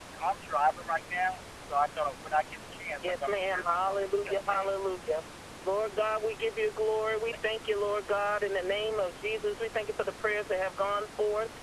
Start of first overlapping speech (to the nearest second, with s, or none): 3 s